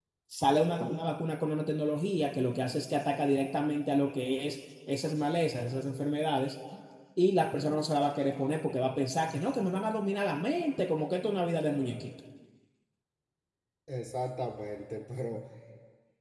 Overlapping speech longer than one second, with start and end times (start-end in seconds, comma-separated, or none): none